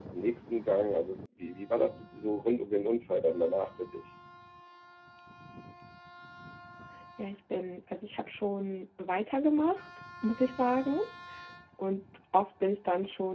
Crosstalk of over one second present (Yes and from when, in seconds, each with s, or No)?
No